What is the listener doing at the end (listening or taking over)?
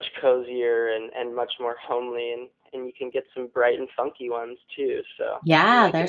taking over